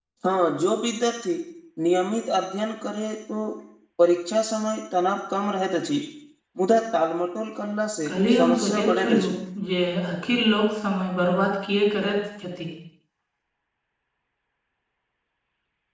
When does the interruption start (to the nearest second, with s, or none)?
8 s